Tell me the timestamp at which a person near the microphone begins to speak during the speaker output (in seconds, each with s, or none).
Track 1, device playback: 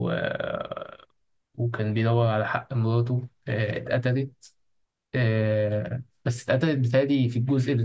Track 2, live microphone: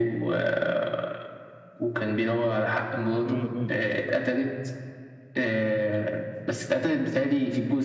3.2 s